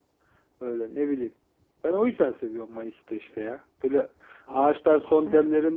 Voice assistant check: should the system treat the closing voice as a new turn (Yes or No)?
No